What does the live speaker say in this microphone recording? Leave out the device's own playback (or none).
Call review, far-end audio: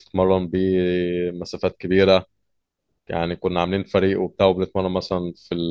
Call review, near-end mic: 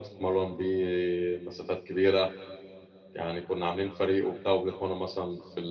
none